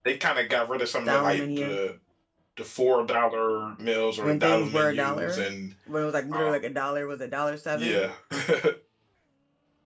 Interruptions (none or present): present